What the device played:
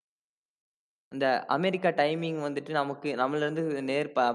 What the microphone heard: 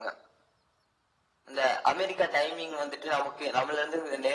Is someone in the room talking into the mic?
No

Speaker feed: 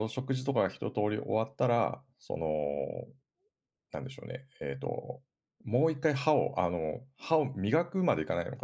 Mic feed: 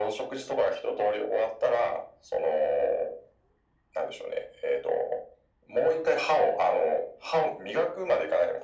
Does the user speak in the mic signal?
No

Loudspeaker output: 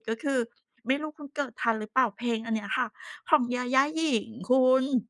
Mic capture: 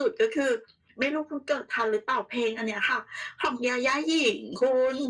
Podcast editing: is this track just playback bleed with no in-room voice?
Yes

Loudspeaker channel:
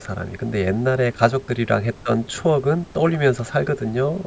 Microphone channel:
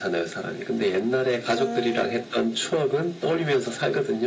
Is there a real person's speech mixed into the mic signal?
Yes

